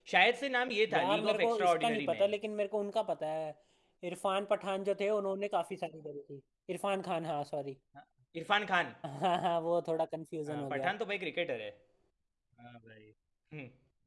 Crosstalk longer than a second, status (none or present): present